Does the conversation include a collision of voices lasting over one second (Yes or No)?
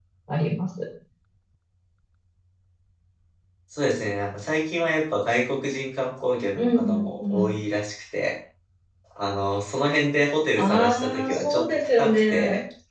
Yes